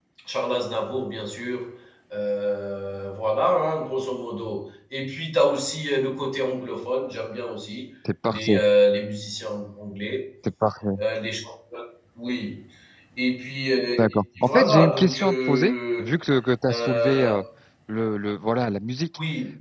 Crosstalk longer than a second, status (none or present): present